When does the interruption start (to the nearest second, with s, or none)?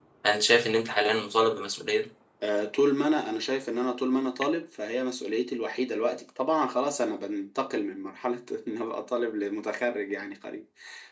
none